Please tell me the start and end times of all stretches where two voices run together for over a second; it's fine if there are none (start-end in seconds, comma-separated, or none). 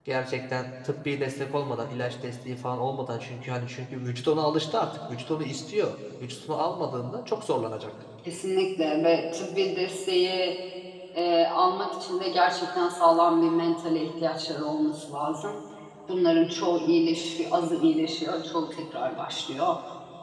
none